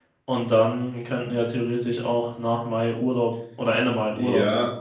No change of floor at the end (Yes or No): No